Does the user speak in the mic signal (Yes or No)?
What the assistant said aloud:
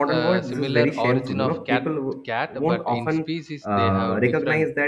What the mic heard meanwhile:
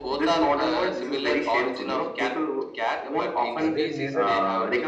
Yes